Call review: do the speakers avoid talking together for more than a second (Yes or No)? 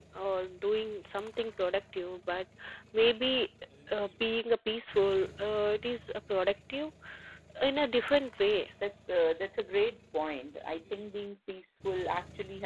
Yes